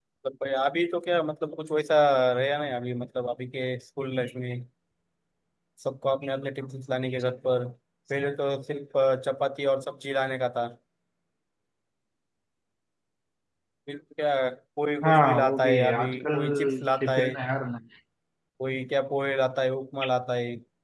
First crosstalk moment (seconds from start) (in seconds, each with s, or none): 15.0 s